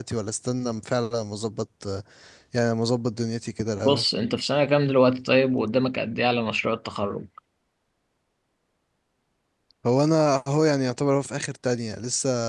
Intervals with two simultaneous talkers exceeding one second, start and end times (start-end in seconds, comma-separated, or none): none